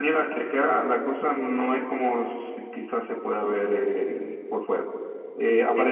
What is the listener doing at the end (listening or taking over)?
listening